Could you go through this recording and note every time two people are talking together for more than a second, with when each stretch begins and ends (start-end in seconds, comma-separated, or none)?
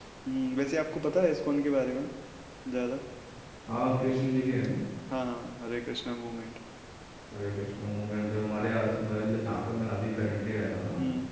none